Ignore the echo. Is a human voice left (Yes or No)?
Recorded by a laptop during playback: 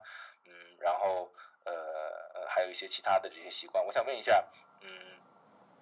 No